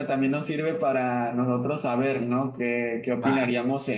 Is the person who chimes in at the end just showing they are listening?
Yes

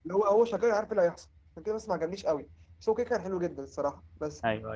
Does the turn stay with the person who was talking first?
Yes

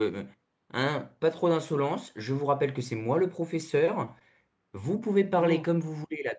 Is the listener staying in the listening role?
Yes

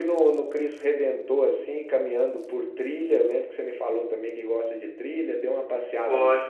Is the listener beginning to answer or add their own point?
No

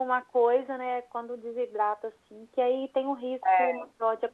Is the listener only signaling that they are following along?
Yes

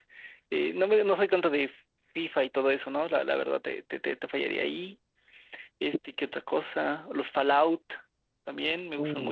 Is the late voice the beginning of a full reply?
Yes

